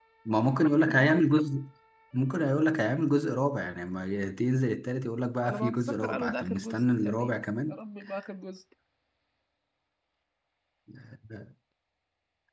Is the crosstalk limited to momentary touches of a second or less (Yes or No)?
No